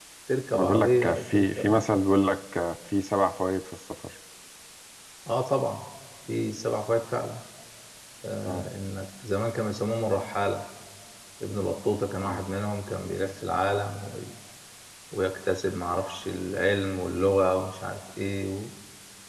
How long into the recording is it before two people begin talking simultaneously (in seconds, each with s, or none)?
0.6 s